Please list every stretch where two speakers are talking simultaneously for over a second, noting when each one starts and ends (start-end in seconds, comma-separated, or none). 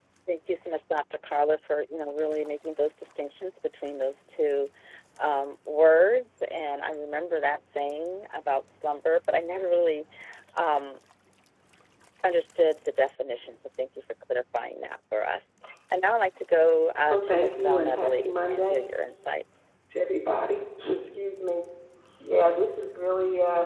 17.1-18.8